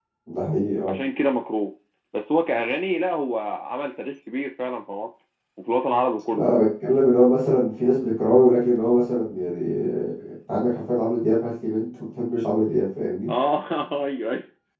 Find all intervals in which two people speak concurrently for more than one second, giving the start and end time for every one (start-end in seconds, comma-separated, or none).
none